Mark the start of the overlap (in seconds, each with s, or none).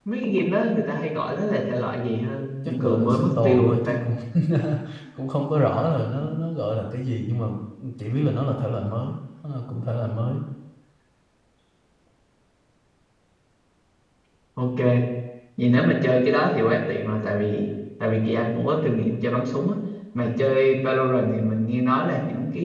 2.8 s